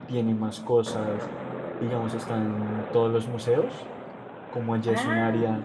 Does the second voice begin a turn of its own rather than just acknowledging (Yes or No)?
No